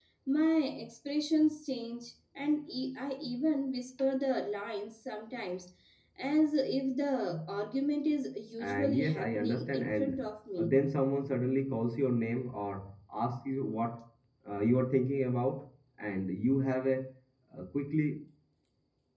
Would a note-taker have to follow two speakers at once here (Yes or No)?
Yes